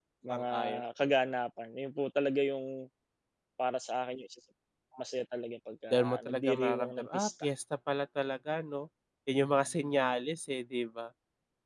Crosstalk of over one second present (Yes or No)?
Yes